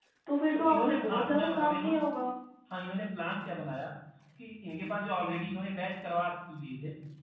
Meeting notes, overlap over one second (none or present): present